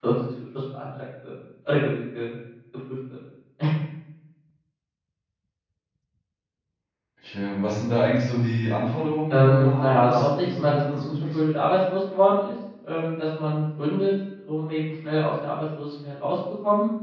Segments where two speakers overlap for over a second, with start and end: 9.3-11.4

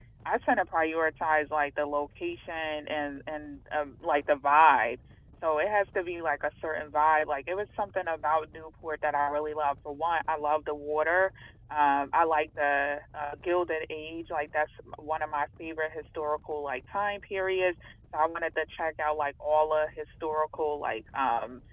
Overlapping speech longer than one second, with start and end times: none

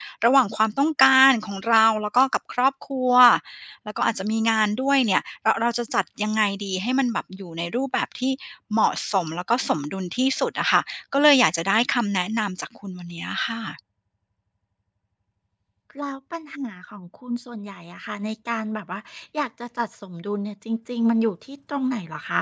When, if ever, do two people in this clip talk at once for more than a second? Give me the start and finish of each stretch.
none

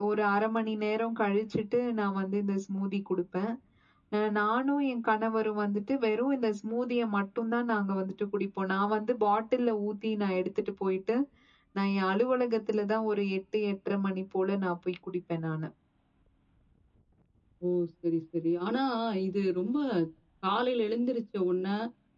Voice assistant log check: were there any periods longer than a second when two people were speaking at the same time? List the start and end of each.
none

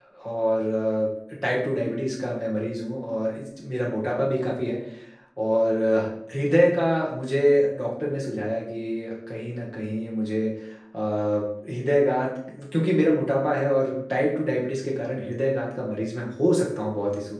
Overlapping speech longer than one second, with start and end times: none

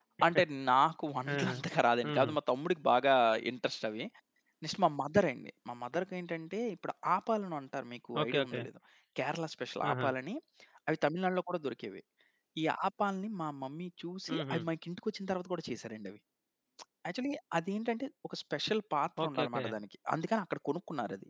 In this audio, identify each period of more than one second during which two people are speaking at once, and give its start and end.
none

